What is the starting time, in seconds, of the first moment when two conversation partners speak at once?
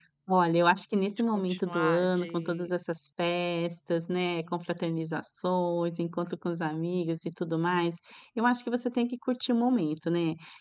1.1 s

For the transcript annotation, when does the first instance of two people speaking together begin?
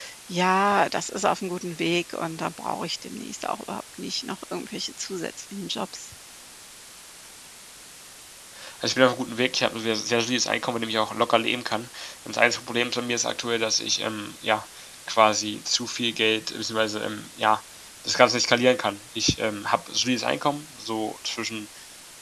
none

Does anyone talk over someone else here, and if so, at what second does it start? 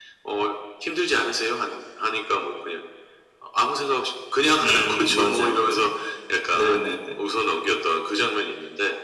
4.6 s

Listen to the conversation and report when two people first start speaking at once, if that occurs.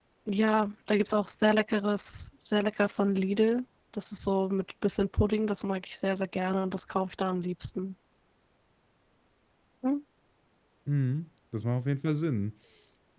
none

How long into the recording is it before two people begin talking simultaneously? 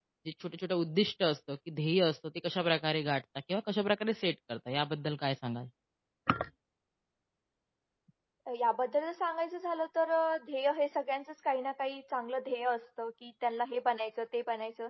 none

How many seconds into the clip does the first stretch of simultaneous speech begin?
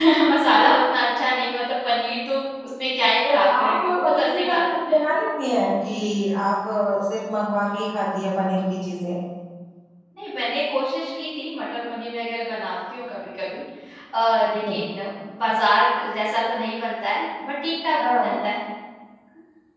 3.2 s

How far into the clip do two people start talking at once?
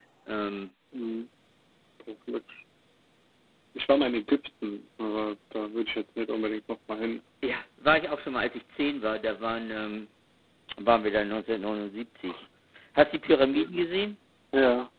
none

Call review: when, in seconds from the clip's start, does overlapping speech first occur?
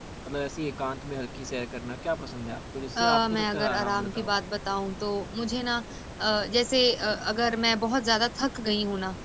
3.0 s

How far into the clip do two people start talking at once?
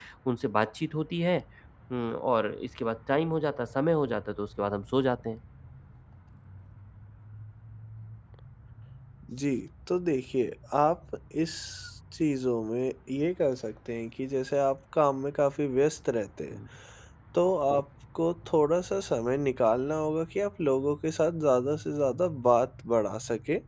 none

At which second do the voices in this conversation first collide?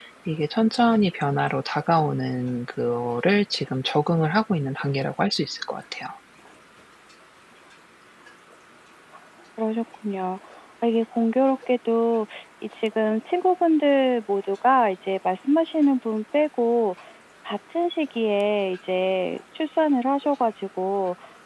none

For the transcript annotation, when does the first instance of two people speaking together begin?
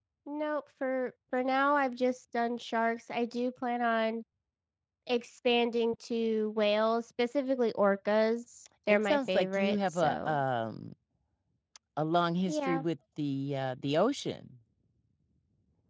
8.9 s

